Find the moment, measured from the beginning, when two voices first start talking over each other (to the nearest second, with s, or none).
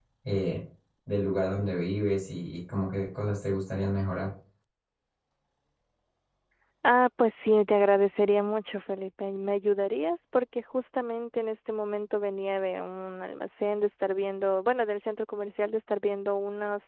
none